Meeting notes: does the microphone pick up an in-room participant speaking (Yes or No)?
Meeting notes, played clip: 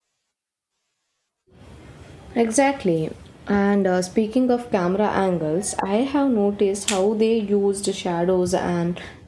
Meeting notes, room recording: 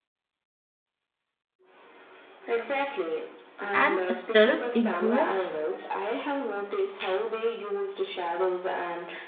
Yes